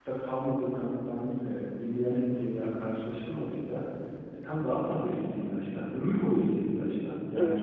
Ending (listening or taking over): taking over